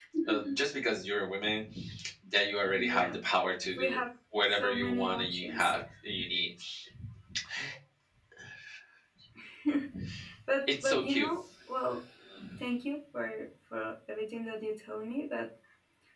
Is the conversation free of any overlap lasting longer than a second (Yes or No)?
No